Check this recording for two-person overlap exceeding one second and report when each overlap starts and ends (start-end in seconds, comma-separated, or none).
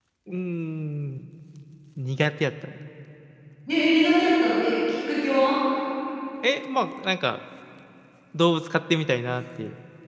none